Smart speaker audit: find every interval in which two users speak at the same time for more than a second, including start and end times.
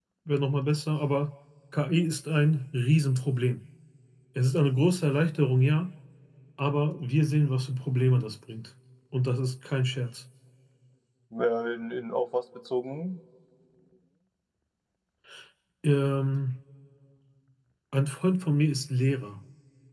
none

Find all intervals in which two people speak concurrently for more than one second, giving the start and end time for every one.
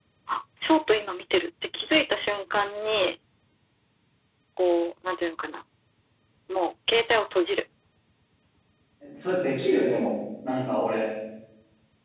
none

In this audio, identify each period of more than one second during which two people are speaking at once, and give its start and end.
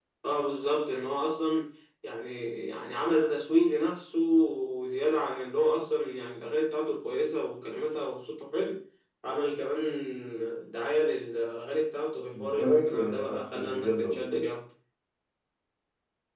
12.3-14.2

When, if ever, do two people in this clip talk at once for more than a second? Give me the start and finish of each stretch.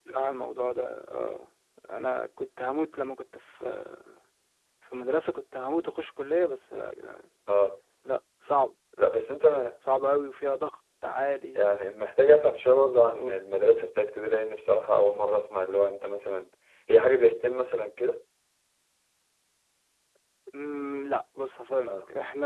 none

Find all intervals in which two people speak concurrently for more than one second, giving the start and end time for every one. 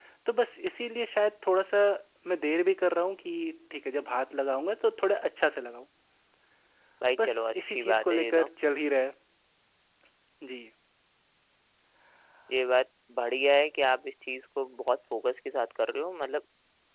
7.2-8.4

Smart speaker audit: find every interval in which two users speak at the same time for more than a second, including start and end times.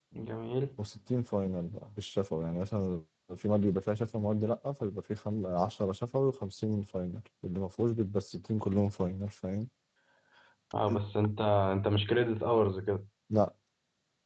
none

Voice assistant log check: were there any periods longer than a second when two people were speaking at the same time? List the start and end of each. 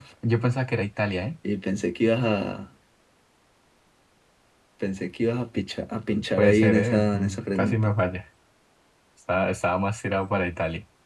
6.4-7.8

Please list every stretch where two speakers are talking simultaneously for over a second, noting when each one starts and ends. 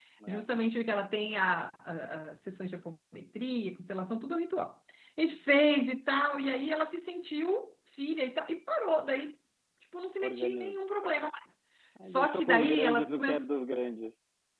12.1-13.5

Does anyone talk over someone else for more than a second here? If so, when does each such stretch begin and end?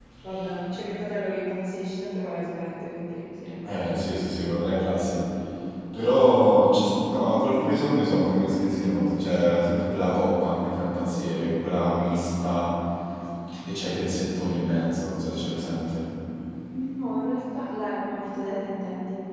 none

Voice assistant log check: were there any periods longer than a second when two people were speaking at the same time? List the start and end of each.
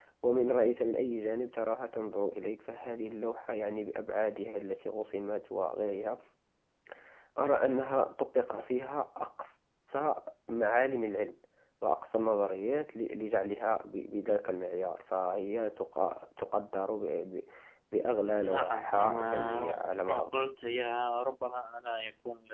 18.4-20.4

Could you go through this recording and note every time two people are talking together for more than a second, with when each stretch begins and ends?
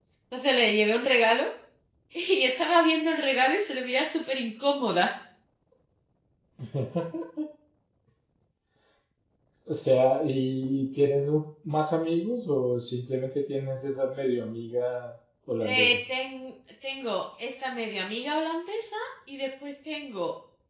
none

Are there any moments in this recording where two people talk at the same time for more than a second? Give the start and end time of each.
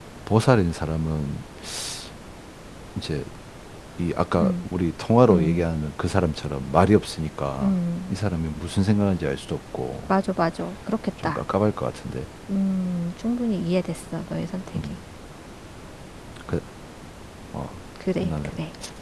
none

